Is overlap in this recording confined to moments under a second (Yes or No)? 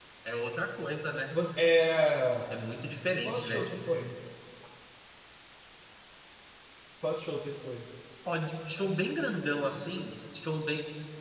Yes